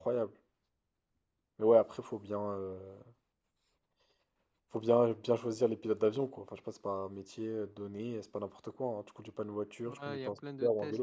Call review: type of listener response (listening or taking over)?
taking over